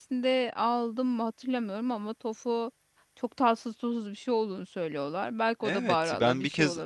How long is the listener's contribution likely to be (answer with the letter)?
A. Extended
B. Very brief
A